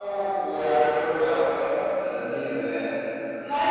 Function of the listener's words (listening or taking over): taking over